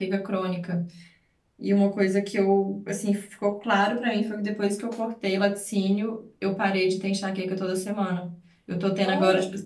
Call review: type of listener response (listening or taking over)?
listening